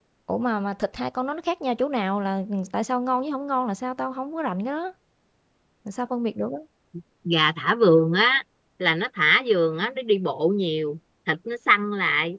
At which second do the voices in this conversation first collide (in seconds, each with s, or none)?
none